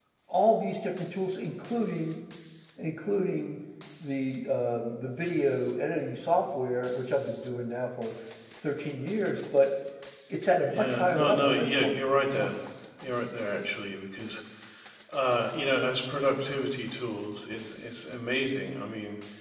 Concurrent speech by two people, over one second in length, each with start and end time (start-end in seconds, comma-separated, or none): 10.7-11.9